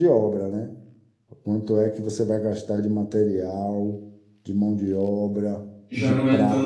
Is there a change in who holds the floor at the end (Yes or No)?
Yes